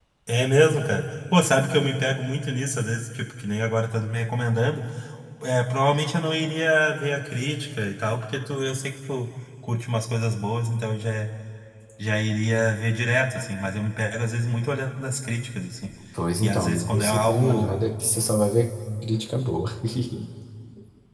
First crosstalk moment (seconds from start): 16.4 s

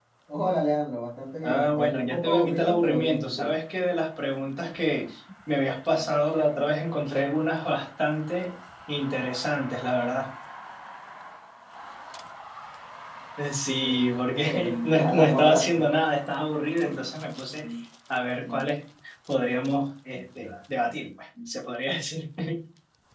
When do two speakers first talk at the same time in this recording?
1.4 s

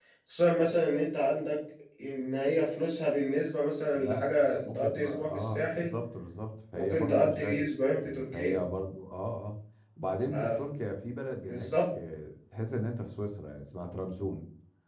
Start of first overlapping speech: 3.9 s

